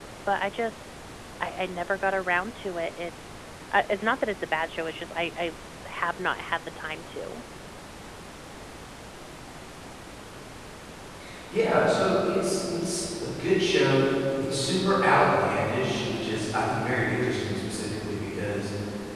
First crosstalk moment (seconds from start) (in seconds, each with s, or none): none